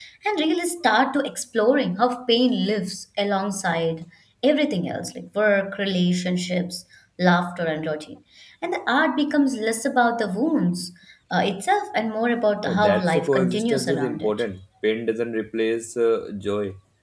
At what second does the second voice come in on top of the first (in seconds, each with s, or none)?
12.6 s